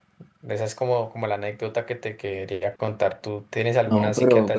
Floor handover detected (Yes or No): Yes